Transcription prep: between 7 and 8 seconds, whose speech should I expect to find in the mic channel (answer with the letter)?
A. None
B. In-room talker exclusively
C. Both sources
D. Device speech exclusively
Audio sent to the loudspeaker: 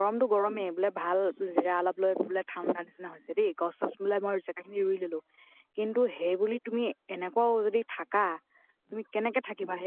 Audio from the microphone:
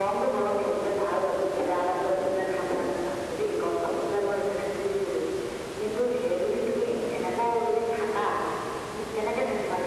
D